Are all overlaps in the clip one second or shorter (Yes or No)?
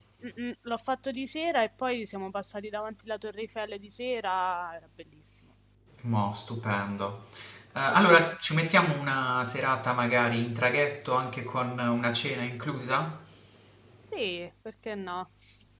Yes